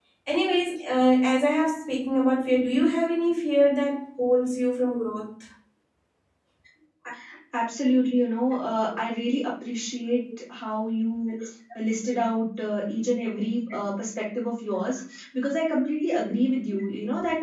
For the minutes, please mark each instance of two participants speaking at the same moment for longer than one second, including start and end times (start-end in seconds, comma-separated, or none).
none